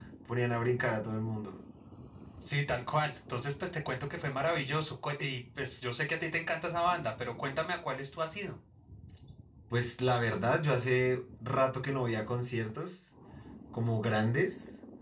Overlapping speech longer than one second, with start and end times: none

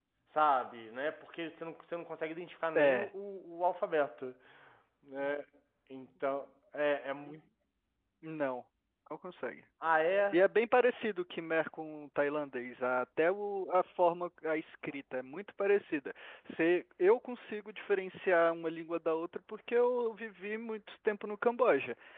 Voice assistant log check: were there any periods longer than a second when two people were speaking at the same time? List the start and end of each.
none

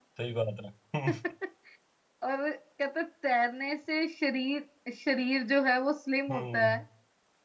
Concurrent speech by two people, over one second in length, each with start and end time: none

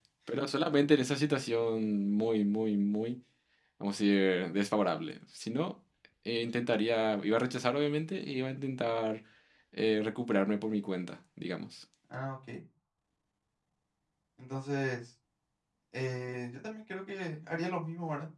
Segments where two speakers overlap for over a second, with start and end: none

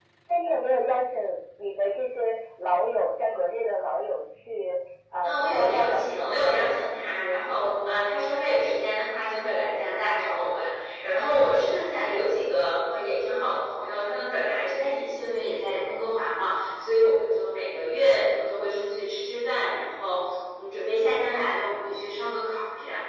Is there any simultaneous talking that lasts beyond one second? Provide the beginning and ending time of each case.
5.2-6.7

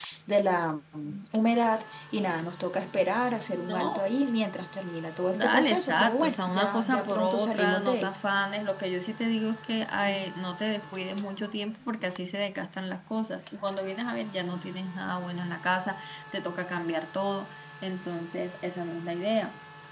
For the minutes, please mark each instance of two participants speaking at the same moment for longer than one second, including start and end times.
5.3-8.2

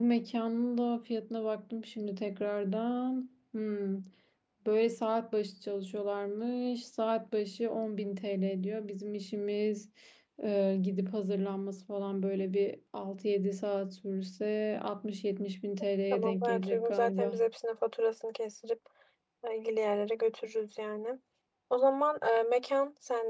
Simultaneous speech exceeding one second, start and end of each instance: 16.1-17.4

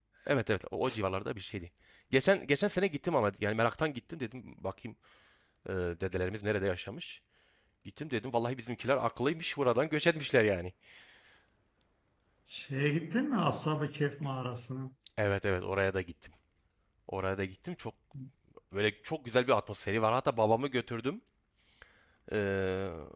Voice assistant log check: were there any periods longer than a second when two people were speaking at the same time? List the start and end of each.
none

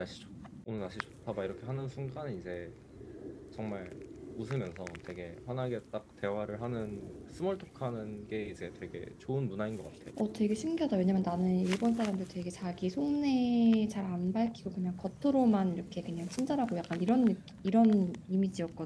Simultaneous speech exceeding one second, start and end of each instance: none

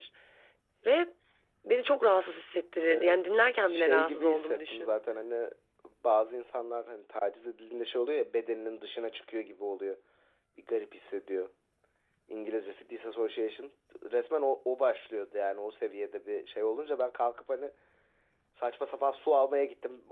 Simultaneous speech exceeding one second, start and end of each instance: 3.7-5.0

